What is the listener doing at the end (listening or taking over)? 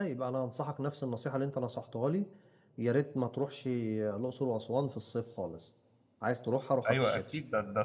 taking over